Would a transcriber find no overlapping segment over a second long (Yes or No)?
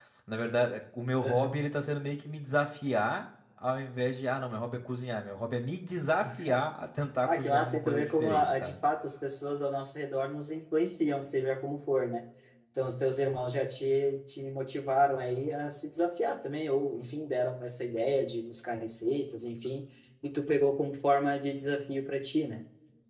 No